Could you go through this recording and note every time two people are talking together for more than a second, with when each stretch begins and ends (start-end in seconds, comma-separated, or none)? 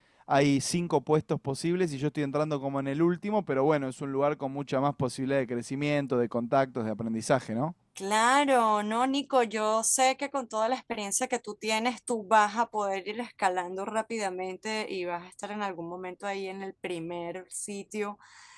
none